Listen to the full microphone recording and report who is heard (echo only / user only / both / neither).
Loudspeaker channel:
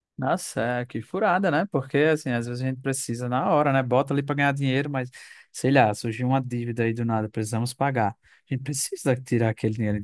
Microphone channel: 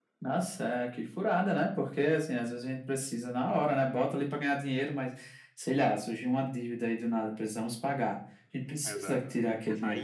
both